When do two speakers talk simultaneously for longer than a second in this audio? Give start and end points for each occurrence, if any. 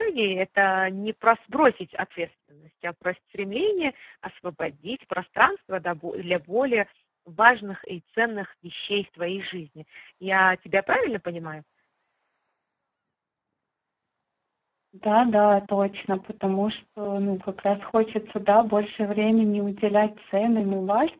none

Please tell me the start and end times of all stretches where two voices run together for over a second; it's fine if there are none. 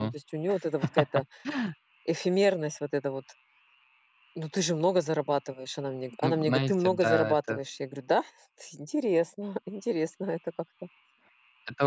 6.2-7.6

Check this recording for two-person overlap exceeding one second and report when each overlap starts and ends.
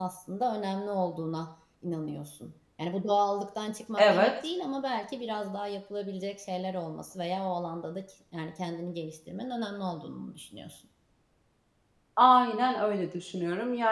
none

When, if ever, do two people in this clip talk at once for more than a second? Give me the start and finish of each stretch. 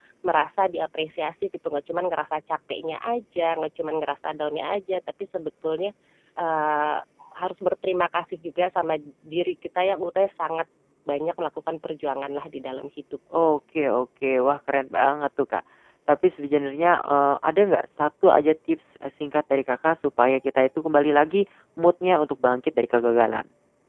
none

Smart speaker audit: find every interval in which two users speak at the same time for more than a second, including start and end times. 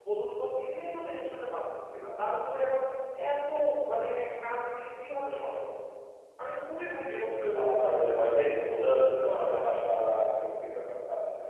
7.5-9.6

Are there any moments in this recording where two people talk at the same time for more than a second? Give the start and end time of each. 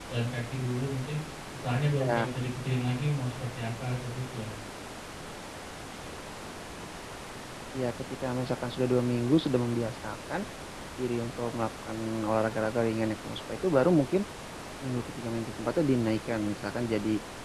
none

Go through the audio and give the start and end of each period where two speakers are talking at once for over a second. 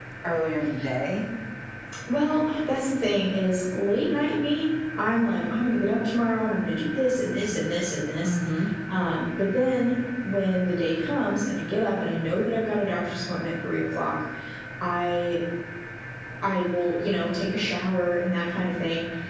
none

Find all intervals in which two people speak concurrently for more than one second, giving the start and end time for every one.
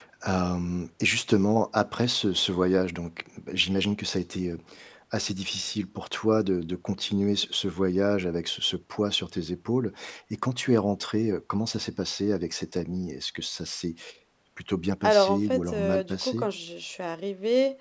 15.1-16.5

